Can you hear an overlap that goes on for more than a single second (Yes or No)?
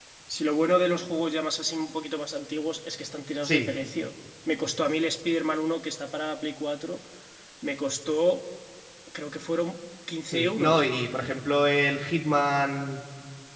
No